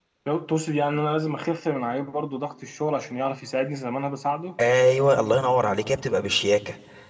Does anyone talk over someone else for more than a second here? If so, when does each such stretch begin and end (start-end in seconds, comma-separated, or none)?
none